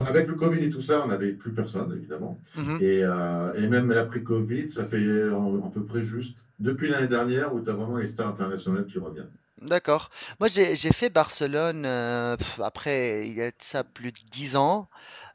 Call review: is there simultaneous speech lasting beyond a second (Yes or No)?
No